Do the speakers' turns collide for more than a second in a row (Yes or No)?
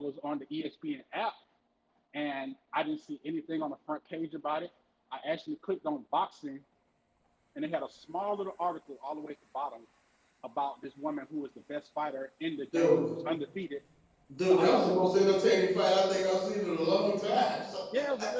No